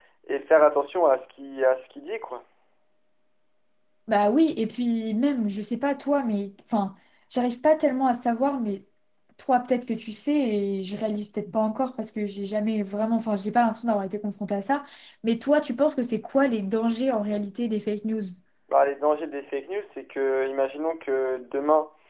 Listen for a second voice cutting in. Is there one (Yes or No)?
No